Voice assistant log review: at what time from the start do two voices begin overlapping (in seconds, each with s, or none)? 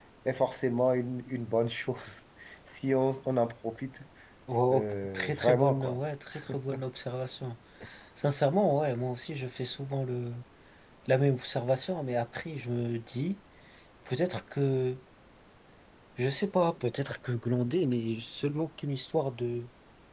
4.7 s